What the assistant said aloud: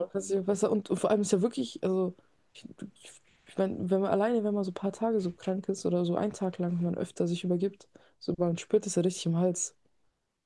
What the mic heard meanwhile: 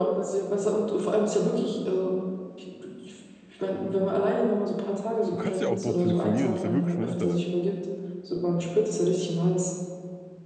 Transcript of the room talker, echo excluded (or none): du kannst ja auch dort telefonieren, das ist ja wirklich nur Internet.